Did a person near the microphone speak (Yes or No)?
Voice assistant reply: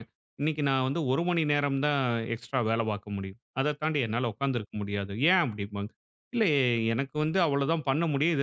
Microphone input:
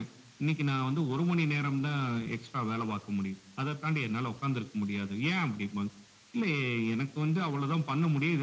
No